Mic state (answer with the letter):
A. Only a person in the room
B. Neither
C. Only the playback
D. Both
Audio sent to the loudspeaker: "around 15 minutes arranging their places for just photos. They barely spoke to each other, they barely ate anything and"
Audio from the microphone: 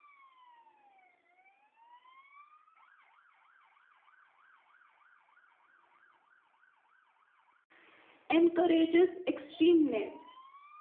A